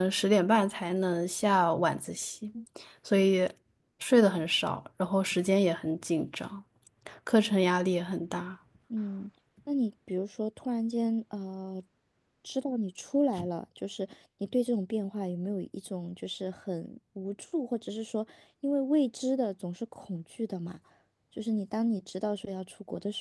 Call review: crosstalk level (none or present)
none